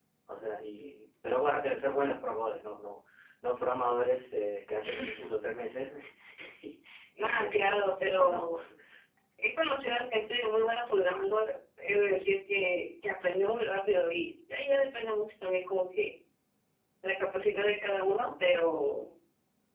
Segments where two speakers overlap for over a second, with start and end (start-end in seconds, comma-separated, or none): 7.2-8.4